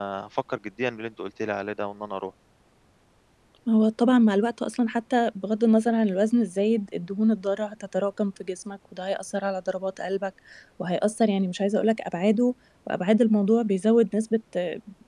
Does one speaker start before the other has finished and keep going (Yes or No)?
No